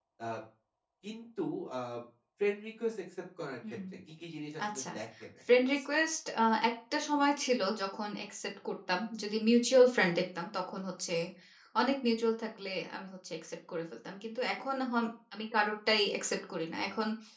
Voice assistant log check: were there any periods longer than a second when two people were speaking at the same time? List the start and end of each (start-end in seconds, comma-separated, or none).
none